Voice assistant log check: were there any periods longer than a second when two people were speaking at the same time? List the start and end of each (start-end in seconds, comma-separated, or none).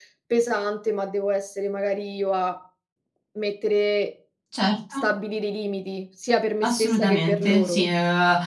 6.6-7.9